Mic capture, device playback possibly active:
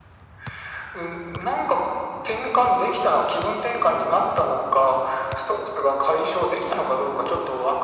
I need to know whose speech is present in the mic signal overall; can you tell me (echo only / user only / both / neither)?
echo only